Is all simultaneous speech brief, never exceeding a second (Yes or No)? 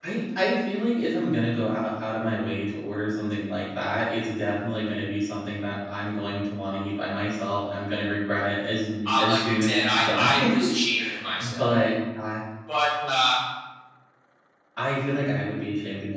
No